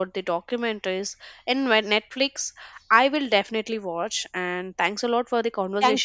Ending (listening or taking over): taking over